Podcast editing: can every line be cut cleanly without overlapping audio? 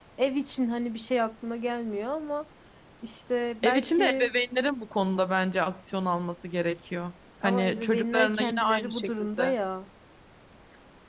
No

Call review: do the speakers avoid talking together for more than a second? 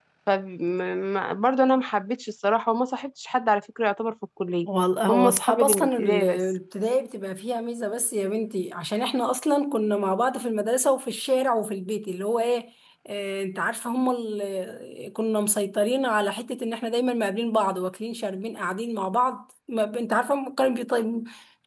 No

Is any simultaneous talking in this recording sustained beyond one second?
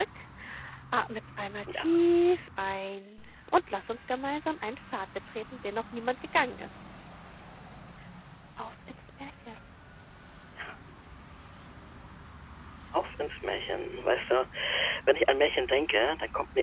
No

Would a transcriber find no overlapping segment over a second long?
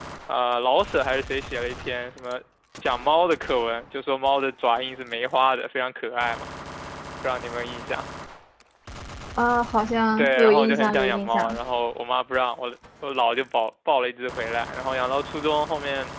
No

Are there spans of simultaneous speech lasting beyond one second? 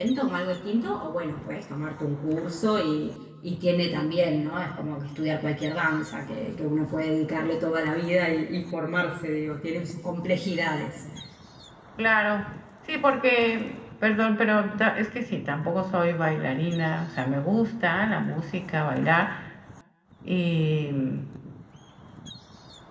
No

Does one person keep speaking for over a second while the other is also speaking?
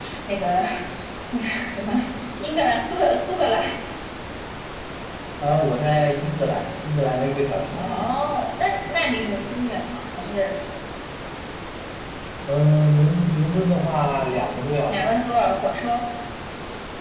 No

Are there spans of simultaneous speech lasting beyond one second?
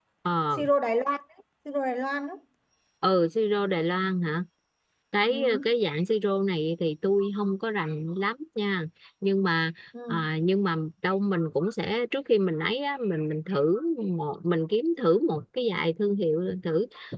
No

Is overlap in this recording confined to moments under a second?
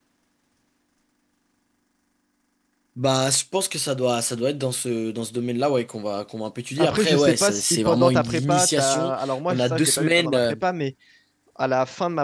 No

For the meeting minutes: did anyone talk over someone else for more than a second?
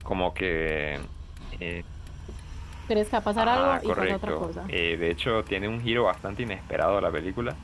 Yes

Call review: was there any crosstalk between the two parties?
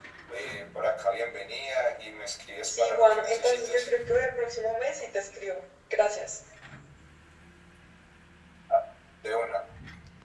Yes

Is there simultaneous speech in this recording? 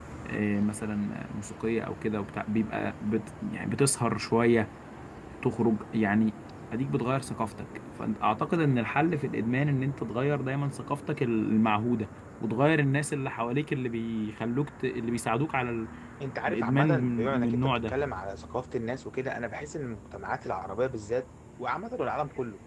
Yes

